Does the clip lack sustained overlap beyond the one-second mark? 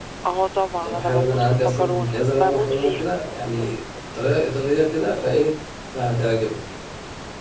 No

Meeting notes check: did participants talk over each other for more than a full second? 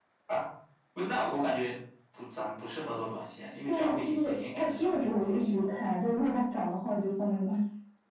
Yes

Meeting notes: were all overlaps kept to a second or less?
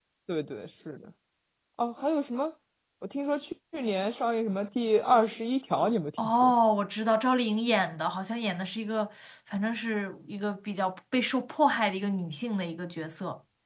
Yes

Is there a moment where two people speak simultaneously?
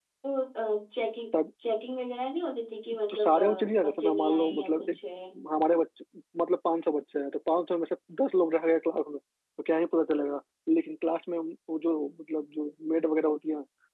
Yes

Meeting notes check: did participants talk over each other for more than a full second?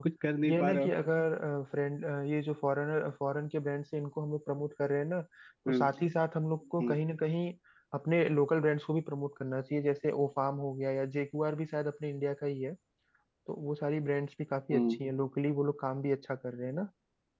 No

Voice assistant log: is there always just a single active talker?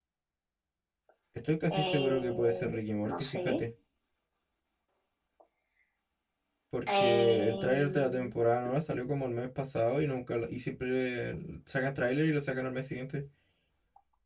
No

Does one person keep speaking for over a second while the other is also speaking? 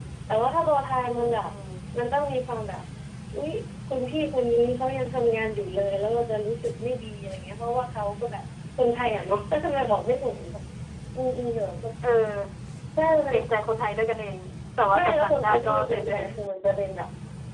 Yes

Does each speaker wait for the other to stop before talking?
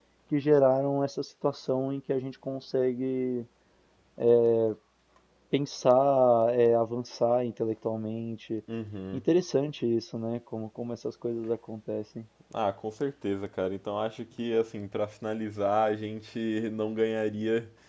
Yes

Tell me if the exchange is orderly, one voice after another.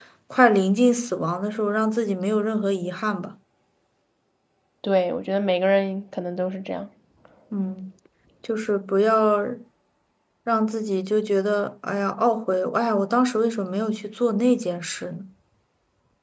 Yes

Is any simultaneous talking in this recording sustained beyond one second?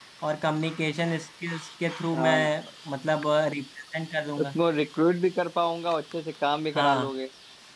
No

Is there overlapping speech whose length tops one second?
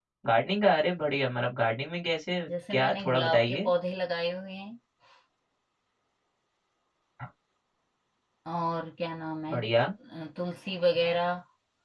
Yes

